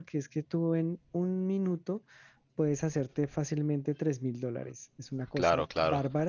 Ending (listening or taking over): listening